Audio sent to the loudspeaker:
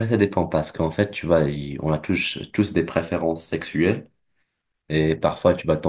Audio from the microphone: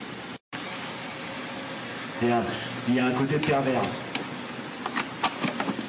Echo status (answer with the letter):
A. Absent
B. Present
A